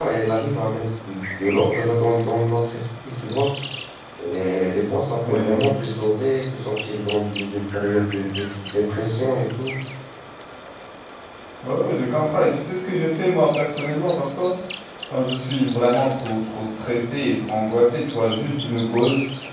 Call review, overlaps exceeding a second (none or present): none